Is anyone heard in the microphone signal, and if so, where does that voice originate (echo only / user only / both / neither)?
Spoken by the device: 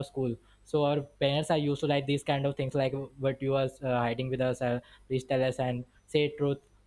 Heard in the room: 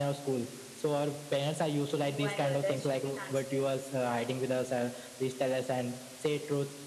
both